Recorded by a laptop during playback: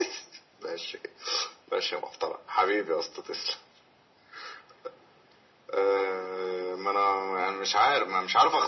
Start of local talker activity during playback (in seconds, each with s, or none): none